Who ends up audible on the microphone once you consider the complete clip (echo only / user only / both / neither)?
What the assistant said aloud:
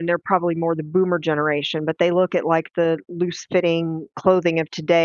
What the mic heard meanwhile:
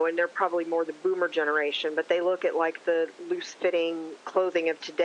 echo only